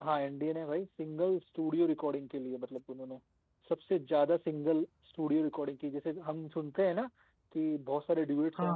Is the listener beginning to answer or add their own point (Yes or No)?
No